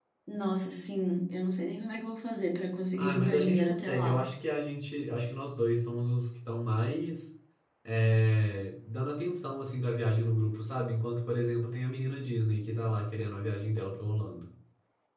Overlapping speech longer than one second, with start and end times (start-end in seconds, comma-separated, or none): 2.9-4.2